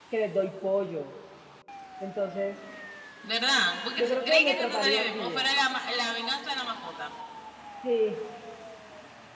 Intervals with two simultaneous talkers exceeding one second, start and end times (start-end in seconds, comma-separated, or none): 4.0-5.4